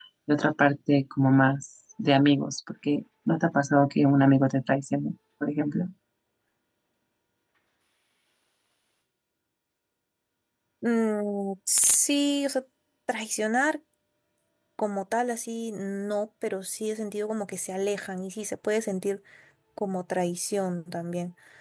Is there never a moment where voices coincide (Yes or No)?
Yes